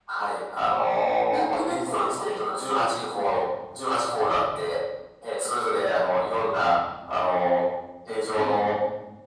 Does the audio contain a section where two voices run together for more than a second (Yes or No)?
Yes